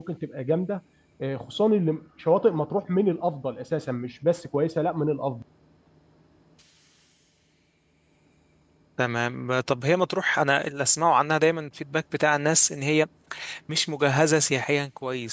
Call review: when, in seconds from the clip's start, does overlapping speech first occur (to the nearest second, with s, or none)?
none